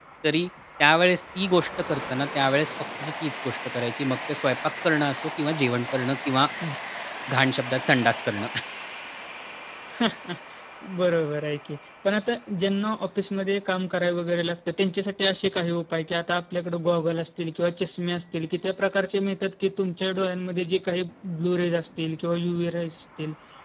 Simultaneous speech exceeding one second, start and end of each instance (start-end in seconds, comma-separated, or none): none